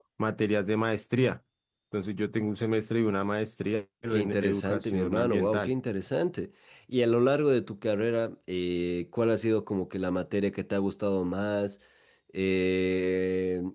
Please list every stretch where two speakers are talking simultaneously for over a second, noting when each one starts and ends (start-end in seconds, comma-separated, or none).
4.1-5.7